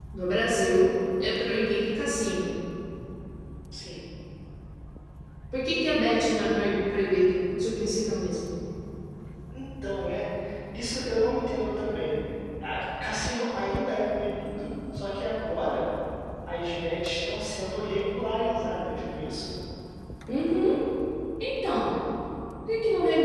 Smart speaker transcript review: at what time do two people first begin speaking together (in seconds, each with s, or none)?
none